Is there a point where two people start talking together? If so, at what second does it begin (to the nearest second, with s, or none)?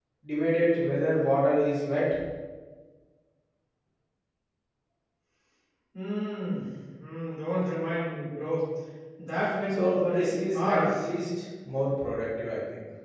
10 s